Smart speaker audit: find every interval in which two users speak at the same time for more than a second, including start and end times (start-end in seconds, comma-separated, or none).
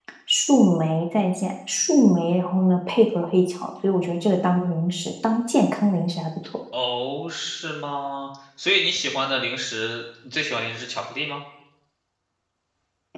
none